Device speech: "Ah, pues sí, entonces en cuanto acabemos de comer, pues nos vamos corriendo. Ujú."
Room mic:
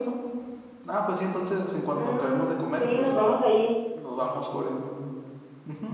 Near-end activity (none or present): present